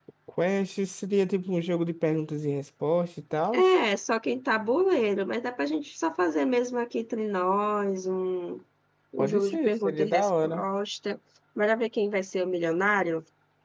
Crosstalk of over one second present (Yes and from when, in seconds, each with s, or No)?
Yes, from 9.2 s